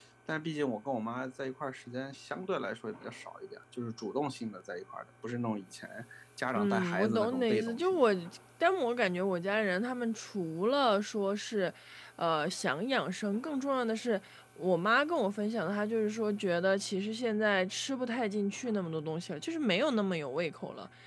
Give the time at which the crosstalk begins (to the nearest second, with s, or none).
7 s